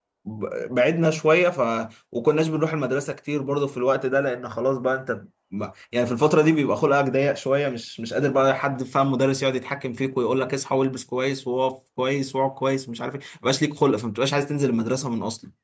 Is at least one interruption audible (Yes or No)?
No